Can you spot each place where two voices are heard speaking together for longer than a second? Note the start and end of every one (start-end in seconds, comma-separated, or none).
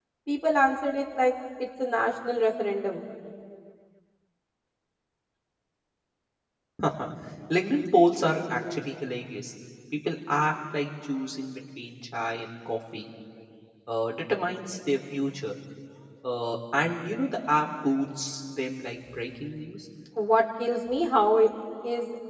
none